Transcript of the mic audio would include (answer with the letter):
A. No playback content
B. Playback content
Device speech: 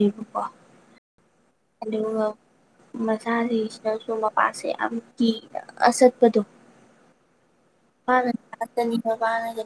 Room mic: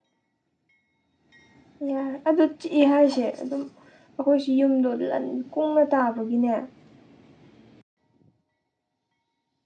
A